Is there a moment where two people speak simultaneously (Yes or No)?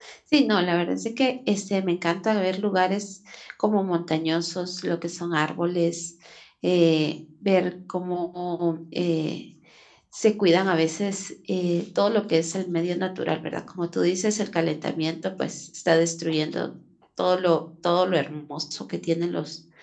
No